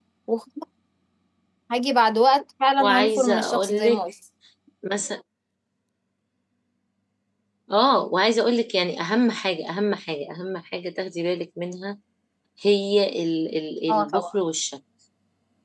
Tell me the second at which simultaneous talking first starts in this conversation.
3 s

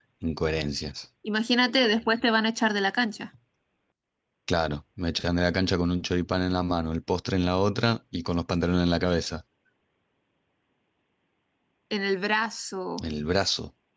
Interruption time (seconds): none

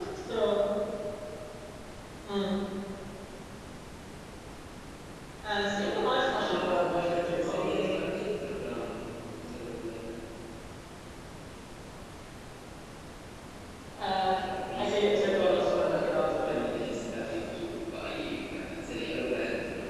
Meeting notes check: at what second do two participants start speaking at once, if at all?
6 s

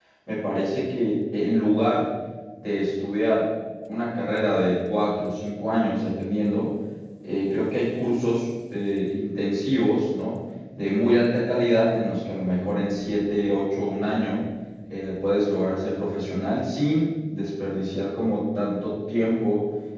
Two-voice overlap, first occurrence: none

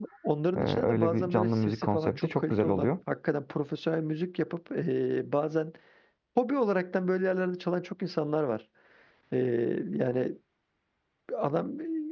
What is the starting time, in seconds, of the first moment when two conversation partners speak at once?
1 s

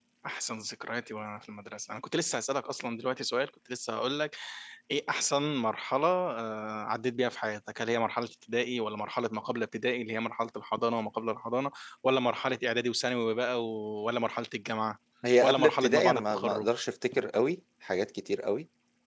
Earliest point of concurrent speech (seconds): 15 s

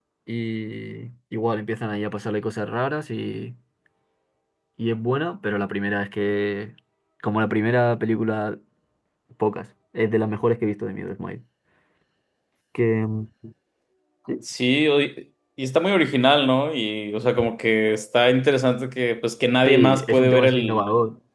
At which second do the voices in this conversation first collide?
20 s

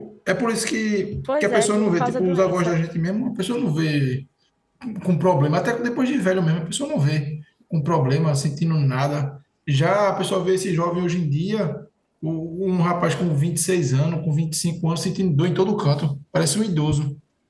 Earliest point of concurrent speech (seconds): 1 s

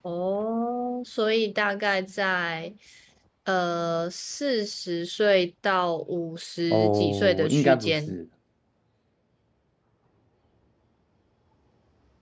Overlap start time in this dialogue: 7 s

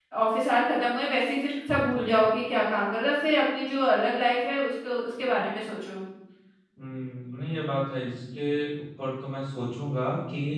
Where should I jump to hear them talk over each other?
none

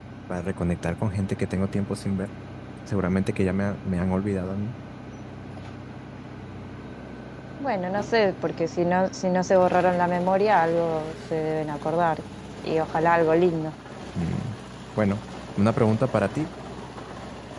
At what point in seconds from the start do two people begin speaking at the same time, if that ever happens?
none

